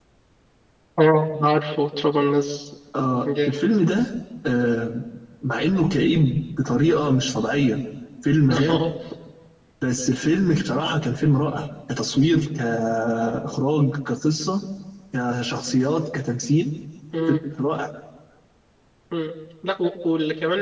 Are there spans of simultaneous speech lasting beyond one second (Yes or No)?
No